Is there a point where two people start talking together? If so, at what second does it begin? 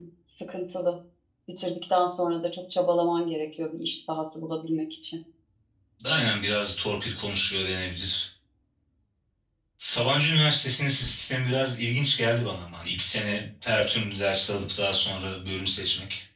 none

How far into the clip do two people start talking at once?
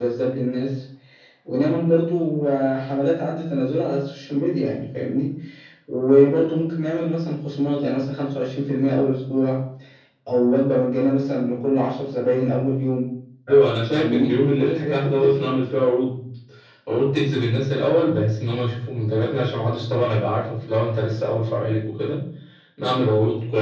13.9 s

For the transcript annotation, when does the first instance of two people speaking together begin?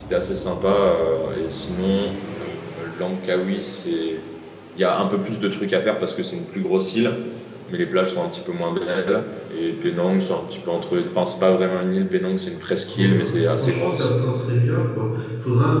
12.9 s

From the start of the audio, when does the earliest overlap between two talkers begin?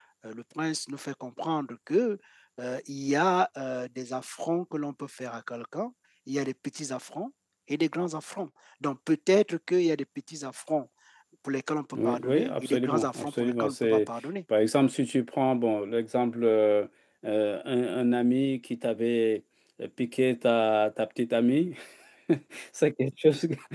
11.9 s

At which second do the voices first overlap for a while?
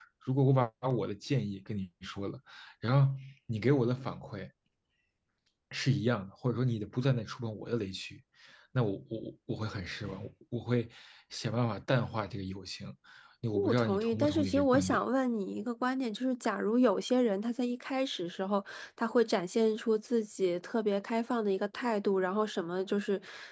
13.7 s

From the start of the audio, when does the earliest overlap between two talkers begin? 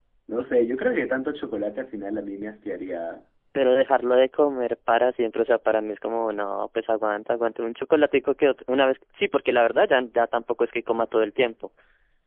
none

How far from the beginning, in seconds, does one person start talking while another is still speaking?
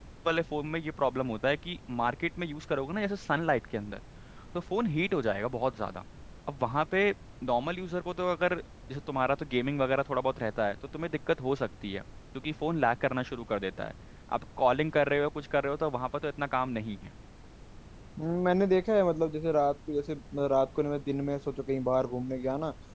none

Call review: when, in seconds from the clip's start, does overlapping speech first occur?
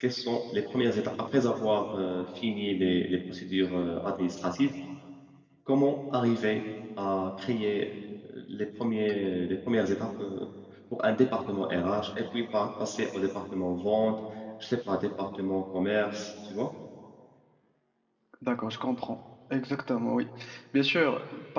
none

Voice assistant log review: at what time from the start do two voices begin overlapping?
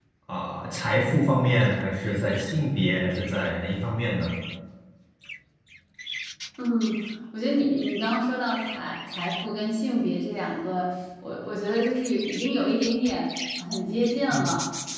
none

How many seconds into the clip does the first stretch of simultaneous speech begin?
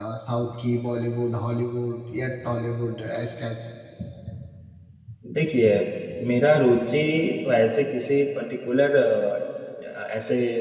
none

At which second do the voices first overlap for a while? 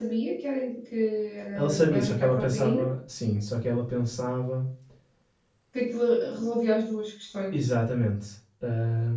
1.6 s

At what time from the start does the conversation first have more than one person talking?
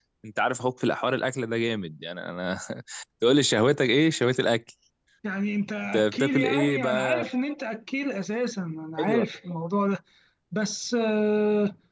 5.9 s

